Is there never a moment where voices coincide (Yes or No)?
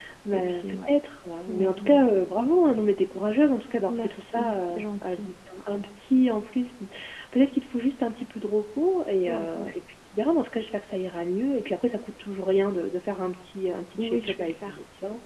No